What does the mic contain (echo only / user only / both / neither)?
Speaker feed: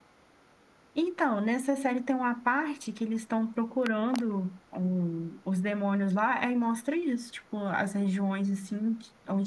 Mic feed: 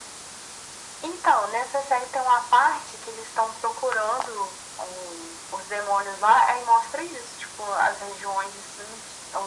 echo only